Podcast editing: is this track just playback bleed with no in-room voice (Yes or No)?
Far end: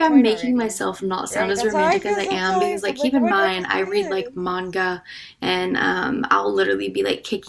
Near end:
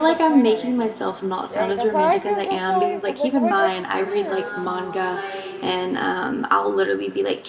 No